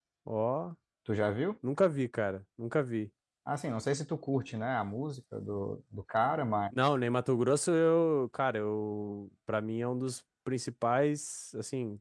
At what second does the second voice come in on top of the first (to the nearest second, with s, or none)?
none